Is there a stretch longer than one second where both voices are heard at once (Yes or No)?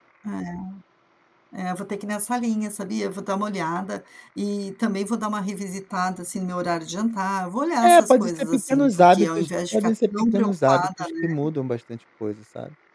Yes